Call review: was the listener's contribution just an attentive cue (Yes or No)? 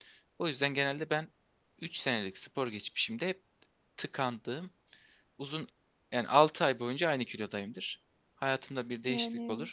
Yes